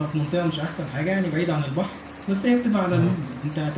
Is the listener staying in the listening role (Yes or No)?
Yes